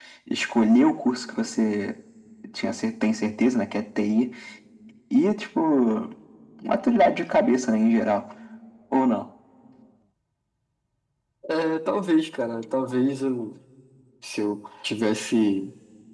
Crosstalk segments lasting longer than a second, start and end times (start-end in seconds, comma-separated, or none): none